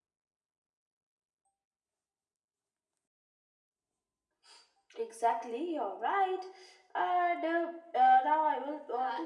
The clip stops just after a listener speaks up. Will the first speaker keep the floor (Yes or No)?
No